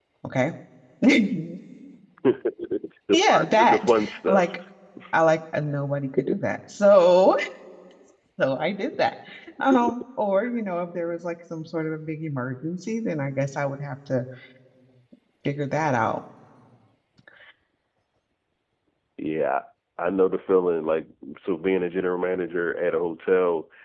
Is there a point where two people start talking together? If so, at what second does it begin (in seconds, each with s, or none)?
3.2 s